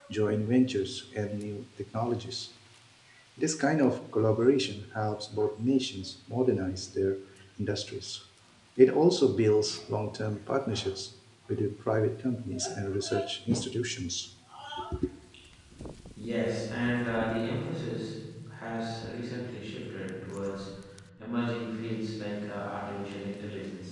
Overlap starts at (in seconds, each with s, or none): none